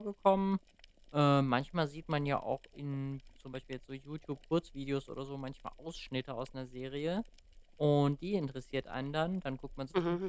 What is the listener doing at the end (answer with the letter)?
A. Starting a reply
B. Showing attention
B